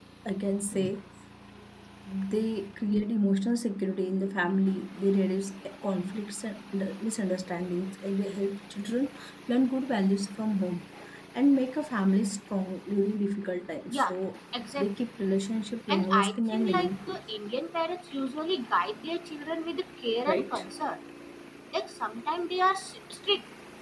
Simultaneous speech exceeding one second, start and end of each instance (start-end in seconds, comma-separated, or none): 15.9-17.2